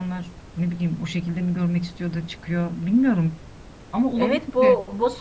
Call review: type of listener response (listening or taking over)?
taking over